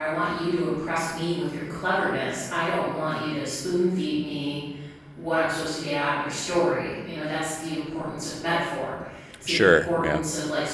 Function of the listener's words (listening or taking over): listening